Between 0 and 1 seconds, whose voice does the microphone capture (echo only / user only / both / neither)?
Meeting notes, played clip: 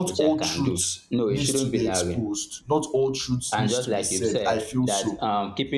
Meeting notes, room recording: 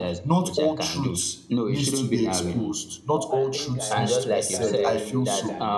echo only